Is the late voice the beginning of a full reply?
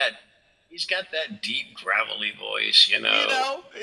Yes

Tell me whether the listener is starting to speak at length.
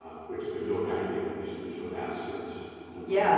Yes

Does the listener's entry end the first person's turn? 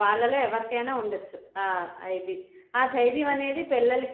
No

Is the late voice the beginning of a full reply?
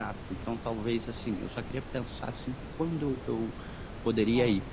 No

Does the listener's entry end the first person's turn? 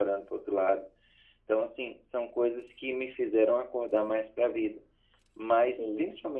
No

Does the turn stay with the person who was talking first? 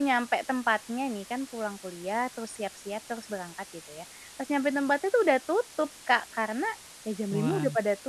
Yes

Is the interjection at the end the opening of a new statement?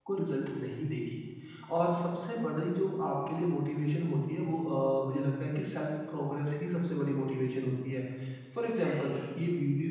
No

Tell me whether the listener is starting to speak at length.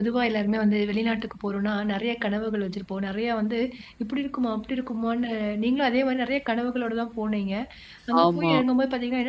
No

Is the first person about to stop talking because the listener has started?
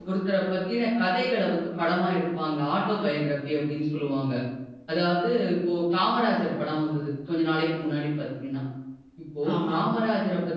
No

